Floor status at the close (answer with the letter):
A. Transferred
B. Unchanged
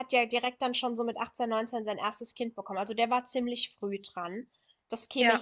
B